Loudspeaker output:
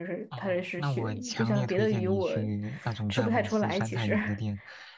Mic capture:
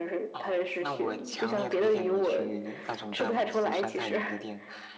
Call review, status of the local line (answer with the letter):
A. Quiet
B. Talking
A